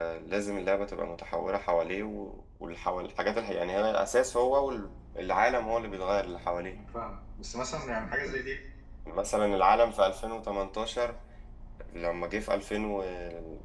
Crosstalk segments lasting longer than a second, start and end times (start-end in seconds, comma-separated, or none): none